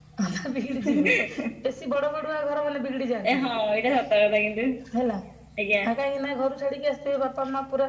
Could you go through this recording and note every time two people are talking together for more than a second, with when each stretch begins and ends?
none

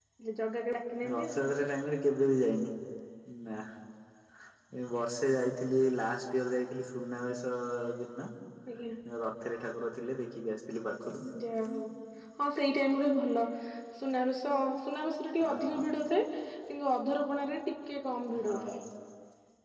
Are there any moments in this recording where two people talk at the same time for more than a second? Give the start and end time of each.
none

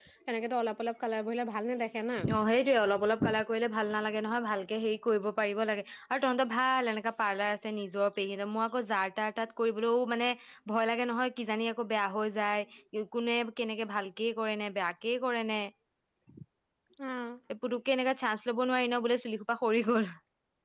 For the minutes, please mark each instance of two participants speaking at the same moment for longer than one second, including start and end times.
none

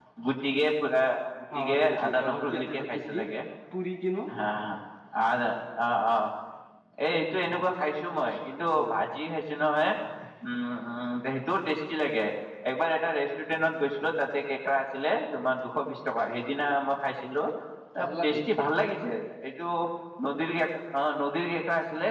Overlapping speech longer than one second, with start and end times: 1.6-3.1

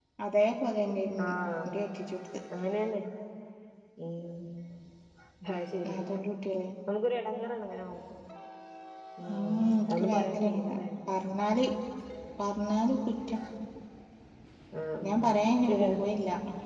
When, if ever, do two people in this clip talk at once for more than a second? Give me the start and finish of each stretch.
9.3-10.8

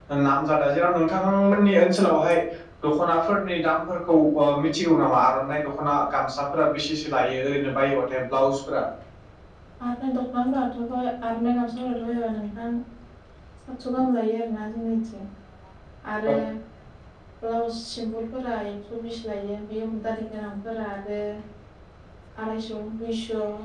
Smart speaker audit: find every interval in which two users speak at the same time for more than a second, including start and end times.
none

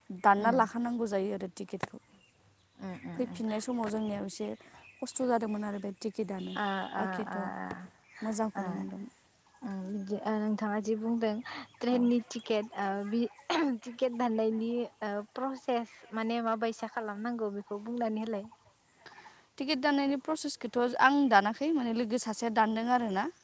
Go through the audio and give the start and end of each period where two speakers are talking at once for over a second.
none

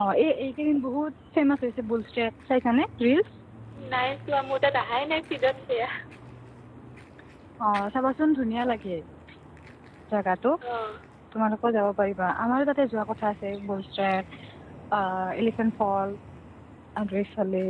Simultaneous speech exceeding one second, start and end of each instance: none

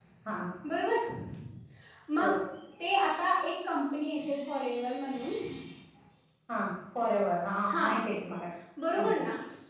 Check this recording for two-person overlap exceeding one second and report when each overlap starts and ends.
none

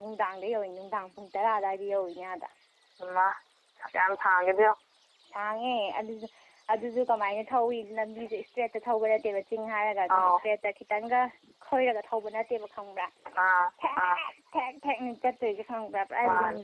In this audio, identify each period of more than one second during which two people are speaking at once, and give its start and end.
none

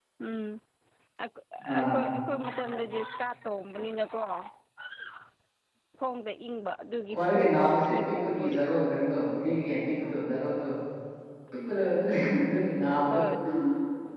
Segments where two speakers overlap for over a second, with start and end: 7.1-8.6

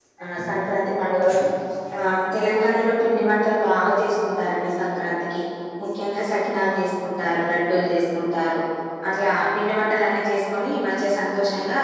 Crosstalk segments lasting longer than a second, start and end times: none

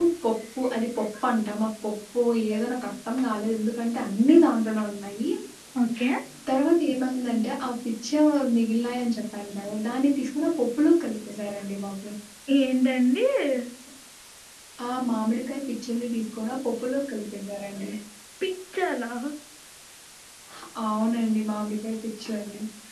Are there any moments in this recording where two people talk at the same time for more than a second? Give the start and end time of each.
none

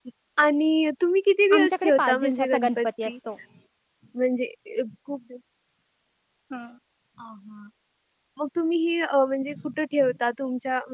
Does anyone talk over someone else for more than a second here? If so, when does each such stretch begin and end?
1.5-3.1

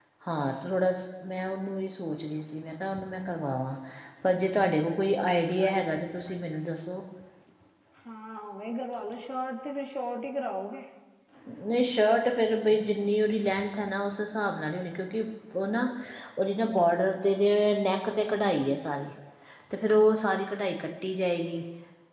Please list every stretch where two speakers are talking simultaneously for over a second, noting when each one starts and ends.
none

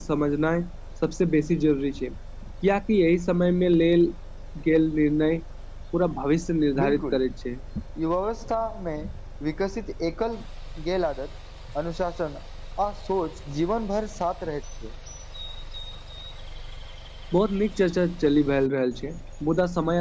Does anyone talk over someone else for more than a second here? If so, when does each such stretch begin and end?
none

